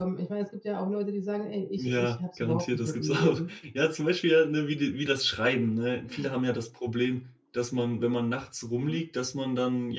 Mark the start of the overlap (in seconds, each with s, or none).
1.8 s